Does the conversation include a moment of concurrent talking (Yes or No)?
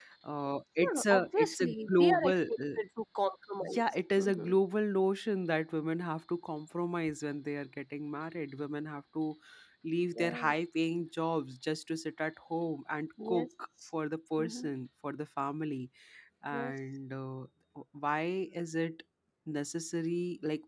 Yes